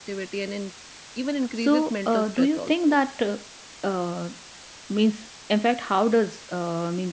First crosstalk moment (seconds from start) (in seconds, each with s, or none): 1.6 s